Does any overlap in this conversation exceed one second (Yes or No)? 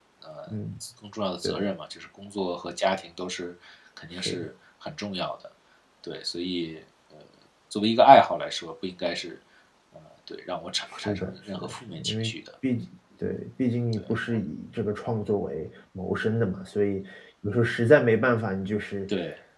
Yes